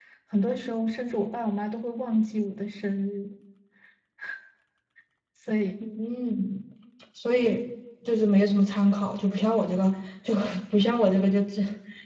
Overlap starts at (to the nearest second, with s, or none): none